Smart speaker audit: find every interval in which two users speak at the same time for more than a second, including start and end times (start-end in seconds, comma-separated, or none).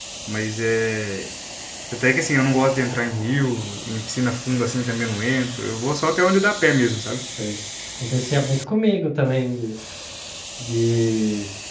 none